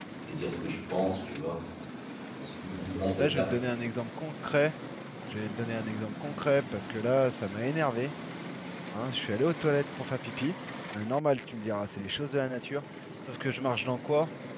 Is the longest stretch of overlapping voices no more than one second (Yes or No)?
Yes